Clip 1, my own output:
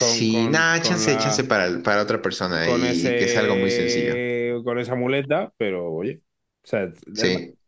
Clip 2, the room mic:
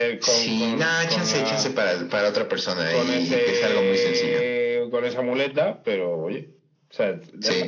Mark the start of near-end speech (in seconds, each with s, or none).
none